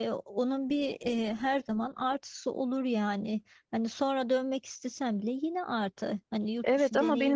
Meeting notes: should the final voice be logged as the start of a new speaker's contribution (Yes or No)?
Yes